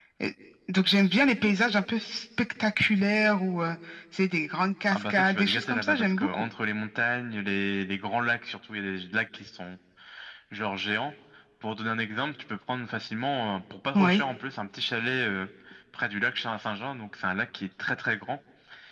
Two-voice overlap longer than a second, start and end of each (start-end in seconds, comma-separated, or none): 4.9-6.4